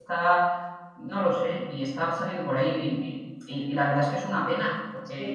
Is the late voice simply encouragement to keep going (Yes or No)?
Yes